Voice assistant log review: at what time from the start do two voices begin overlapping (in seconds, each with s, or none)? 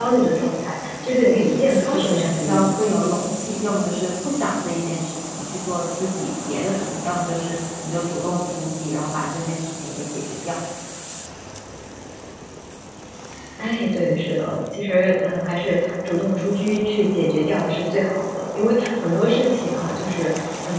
1.2 s